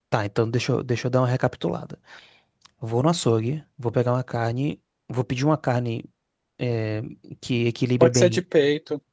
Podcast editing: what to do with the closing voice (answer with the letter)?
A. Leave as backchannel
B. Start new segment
B